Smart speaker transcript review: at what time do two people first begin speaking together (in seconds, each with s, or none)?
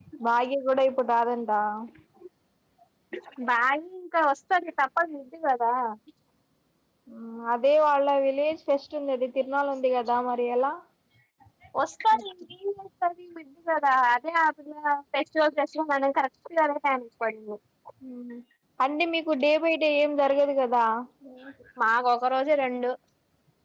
none